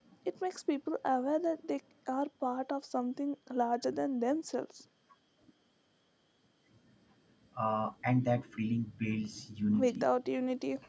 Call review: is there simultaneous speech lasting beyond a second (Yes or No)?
No